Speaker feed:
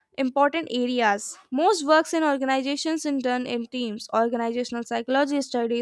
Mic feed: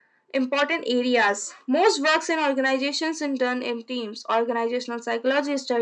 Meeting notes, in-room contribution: none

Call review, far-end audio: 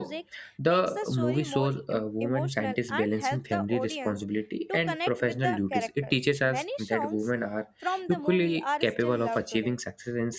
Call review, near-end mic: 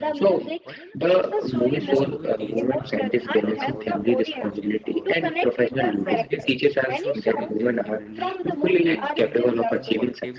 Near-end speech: present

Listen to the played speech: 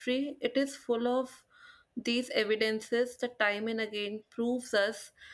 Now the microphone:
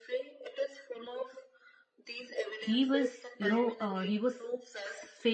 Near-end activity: present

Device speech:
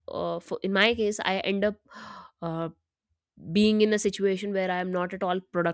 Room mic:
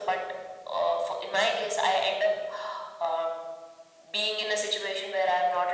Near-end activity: none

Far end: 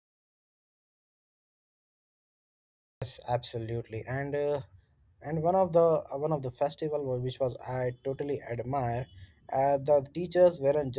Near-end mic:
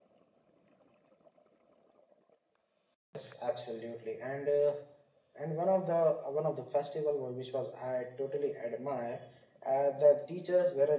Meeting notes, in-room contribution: none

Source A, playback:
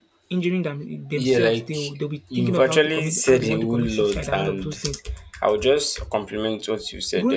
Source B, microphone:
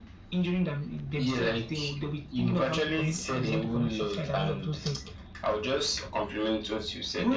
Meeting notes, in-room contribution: none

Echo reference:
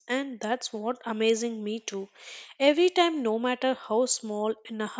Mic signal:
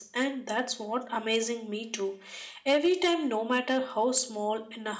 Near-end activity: none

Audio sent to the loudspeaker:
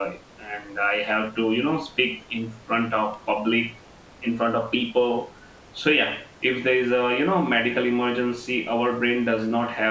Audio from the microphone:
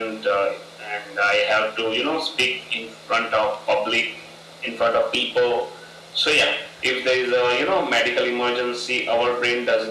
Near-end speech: none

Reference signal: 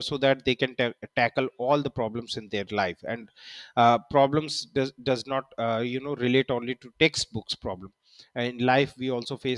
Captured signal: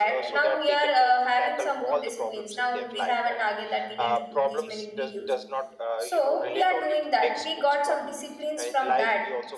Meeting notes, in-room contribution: present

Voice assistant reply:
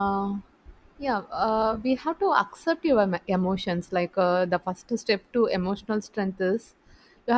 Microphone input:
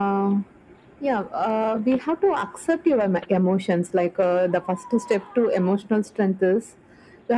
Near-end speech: none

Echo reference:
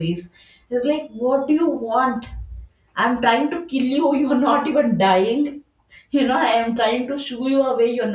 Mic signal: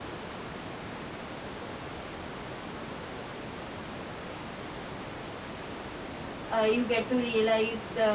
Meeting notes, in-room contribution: present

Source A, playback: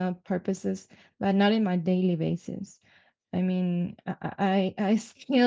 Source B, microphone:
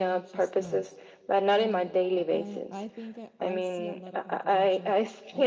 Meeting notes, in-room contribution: present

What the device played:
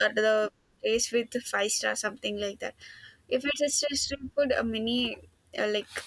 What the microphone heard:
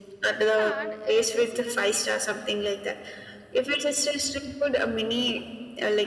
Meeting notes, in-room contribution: present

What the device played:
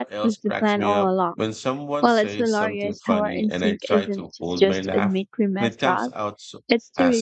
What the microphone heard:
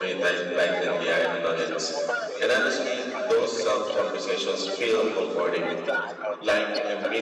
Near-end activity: present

